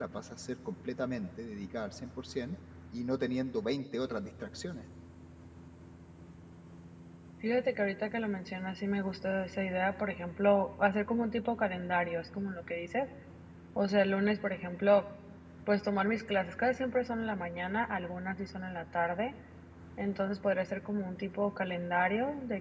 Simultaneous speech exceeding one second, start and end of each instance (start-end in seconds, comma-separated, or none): none